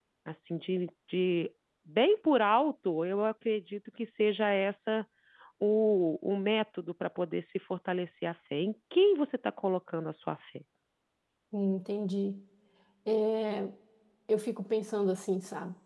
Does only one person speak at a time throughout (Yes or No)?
Yes